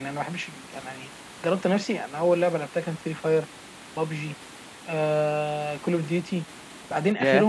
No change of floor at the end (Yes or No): Yes